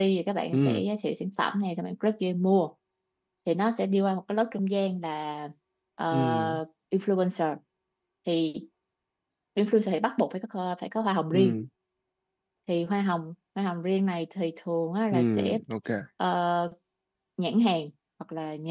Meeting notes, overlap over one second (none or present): none